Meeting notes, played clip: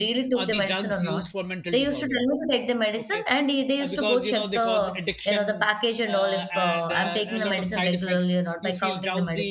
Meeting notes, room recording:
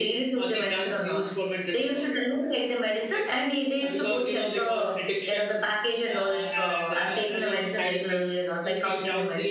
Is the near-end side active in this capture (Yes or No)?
No